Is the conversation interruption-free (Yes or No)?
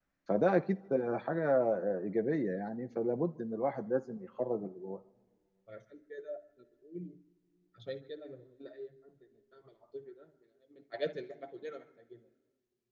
Yes